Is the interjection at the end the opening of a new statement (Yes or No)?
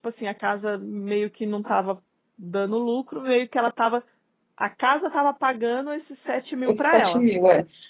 Yes